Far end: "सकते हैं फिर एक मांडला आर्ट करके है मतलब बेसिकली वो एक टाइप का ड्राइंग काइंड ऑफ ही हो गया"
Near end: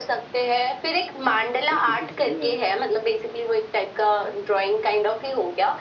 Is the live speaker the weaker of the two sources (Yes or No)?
Yes